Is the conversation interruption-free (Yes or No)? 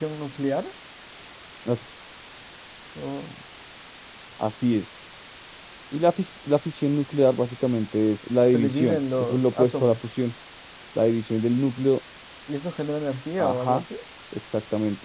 No